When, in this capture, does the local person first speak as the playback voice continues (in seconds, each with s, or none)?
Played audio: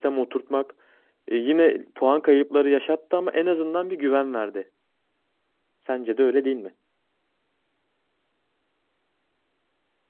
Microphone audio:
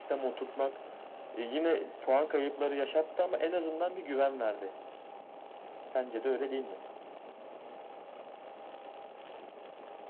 none